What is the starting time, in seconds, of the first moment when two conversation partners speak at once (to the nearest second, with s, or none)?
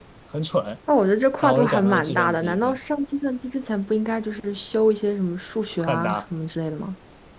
1 s